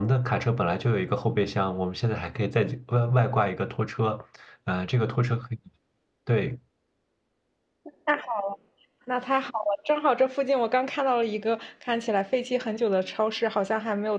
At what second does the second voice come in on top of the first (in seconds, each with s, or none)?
none